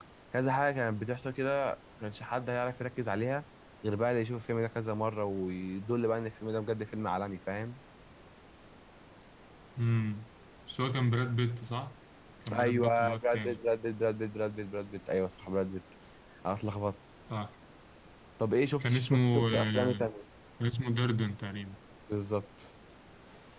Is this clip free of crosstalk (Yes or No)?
No